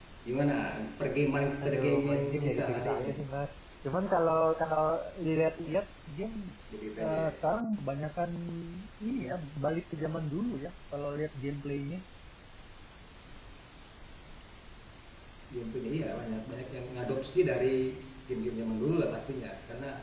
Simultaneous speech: Yes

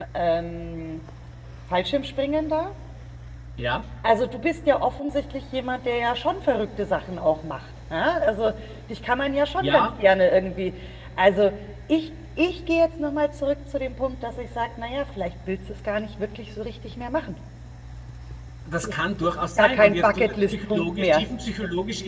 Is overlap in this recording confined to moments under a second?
No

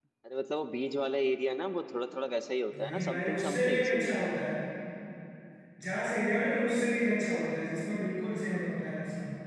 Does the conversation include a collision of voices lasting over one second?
Yes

